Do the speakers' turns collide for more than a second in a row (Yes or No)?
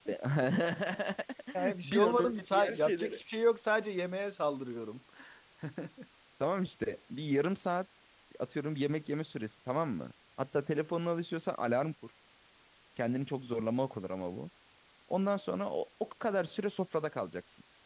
Yes